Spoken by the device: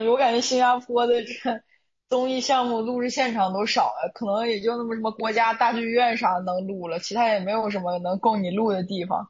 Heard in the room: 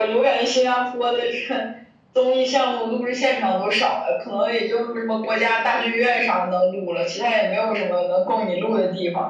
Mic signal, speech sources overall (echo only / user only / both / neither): echo only